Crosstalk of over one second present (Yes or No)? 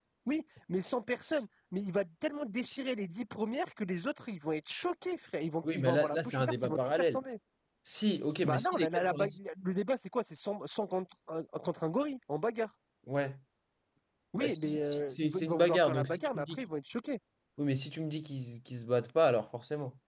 Yes